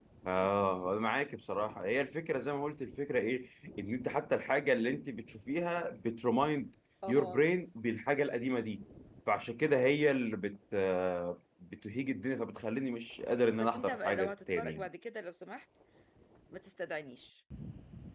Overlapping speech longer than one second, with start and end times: 13.6-14.9

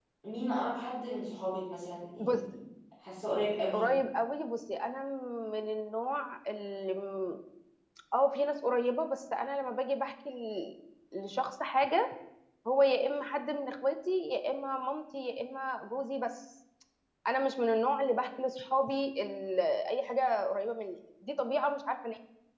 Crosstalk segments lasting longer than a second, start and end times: none

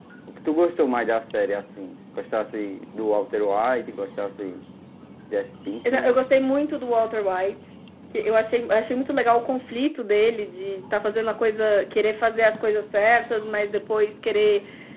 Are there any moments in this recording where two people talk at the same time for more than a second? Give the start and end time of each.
none

